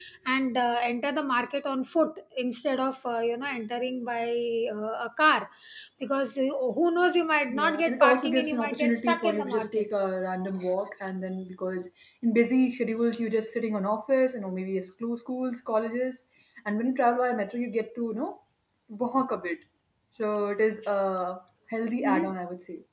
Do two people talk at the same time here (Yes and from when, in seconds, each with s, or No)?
Yes, from 7.5 s